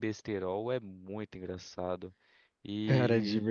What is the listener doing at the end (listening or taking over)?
taking over